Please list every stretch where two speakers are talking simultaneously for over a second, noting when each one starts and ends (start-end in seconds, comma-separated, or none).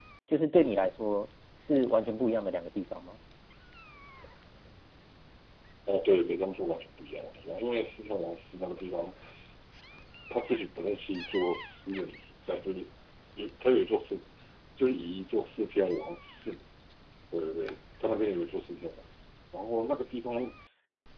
none